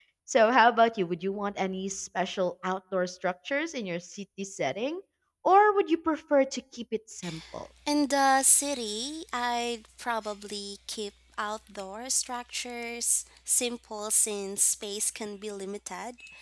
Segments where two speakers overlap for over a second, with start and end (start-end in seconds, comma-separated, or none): none